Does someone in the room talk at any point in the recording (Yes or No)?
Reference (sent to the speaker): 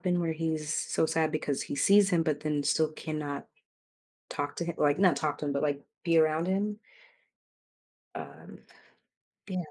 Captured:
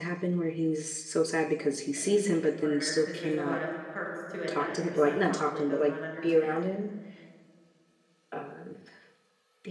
Yes